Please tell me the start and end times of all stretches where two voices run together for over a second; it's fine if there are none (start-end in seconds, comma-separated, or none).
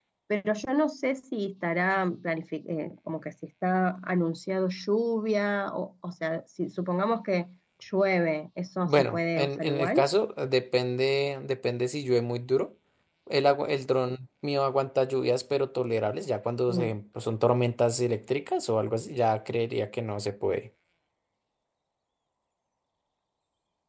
8.8-10.0